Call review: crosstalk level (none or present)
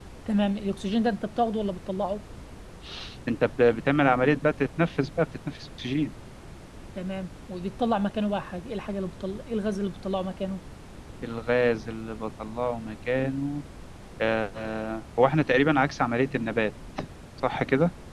none